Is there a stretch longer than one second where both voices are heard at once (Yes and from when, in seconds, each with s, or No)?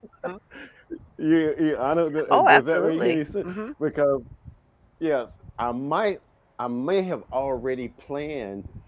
Yes, from 2.3 s